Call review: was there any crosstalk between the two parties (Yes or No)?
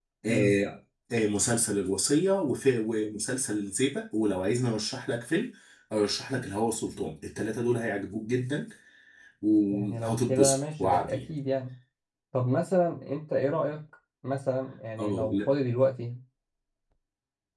Yes